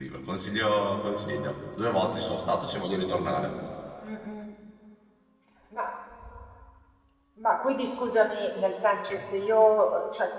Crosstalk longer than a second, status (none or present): none